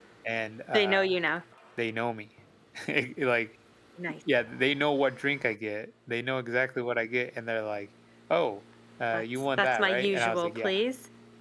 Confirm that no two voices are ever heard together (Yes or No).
No